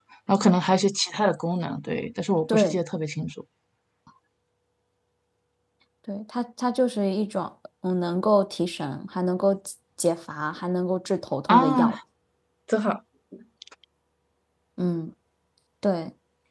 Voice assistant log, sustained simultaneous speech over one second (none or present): none